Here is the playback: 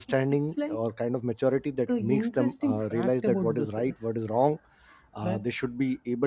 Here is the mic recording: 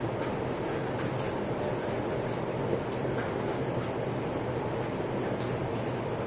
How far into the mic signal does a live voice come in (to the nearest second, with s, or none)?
none